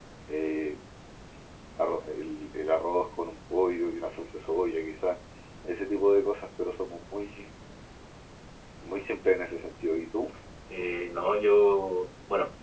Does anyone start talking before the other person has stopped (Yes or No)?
No